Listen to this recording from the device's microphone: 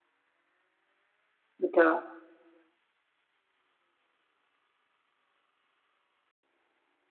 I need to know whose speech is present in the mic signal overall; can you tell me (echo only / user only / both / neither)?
user only